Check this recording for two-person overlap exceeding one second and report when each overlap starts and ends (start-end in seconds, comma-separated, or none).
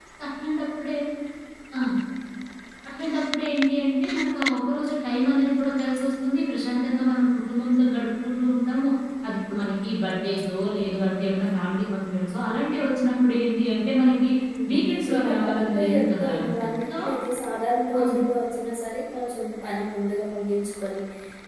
14.7-16.3